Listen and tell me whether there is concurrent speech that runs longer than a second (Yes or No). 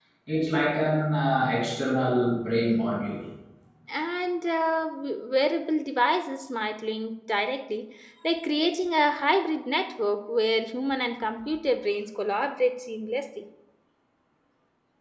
No